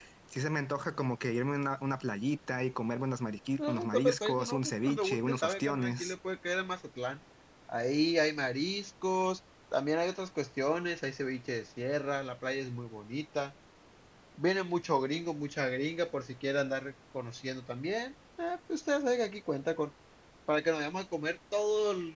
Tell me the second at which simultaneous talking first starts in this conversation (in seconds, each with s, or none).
3.6 s